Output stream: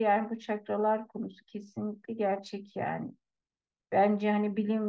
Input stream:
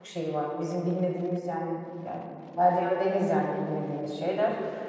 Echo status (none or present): none